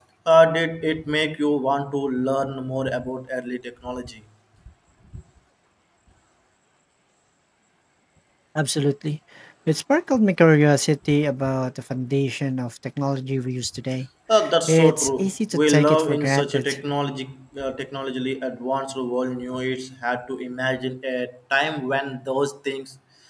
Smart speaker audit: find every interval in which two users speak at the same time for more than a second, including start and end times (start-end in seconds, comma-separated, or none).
14.7-16.8